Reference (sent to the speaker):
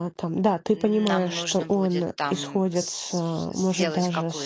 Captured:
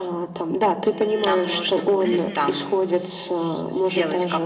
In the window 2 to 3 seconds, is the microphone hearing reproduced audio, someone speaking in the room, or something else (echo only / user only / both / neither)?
both